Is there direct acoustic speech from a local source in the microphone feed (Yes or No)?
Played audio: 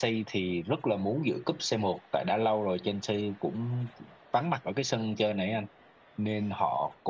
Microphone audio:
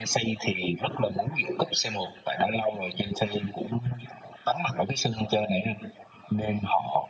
No